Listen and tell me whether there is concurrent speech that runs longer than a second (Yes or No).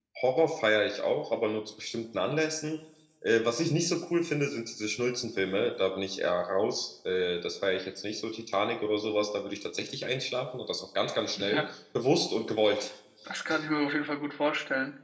No